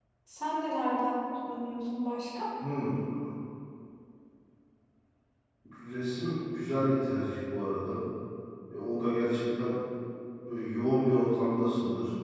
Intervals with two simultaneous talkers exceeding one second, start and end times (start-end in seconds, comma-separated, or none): none